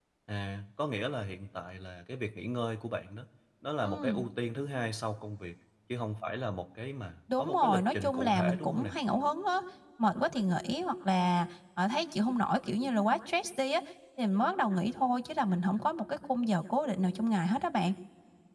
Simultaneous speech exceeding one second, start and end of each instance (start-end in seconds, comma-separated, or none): 7.4-8.9